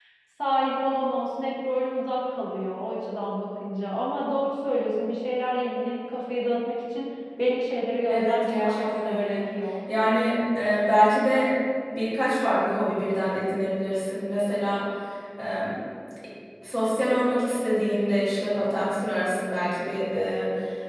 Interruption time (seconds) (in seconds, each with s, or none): 8.1 s